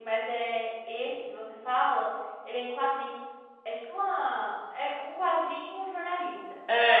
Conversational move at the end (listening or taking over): taking over